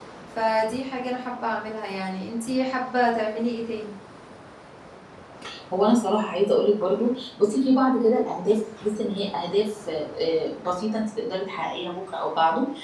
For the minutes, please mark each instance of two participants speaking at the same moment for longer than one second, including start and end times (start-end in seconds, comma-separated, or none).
none